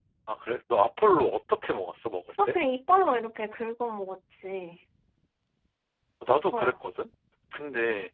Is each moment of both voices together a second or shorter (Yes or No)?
Yes